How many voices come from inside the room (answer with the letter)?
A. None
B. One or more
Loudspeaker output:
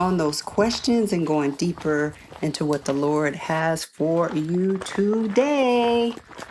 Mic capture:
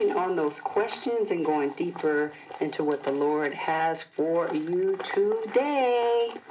A